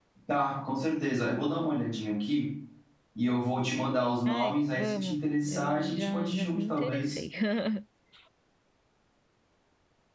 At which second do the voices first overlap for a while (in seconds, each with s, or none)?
4.3 s